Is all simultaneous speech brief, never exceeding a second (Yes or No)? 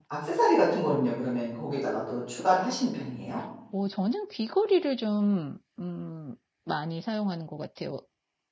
Yes